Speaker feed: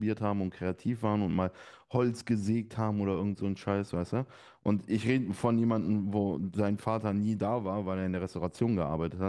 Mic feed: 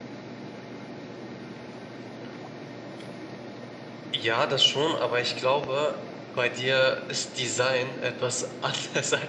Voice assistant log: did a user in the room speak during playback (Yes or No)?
Yes